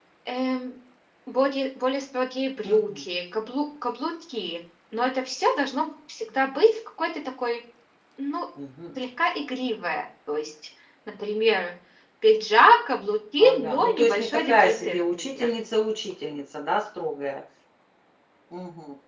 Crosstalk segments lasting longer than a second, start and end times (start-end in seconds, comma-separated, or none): 13.4-15.5